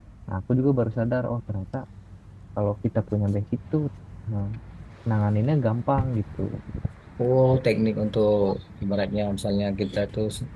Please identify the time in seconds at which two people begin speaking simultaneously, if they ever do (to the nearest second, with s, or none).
none